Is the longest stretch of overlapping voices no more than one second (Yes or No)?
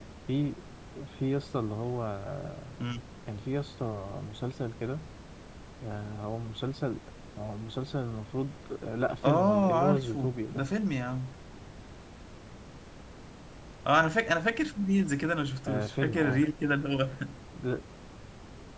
No